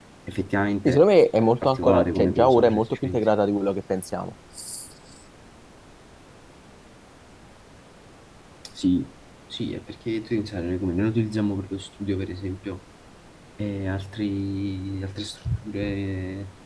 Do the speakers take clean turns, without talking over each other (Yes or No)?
No